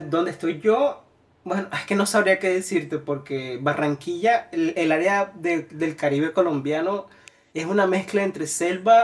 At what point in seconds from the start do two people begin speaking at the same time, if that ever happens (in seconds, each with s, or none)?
none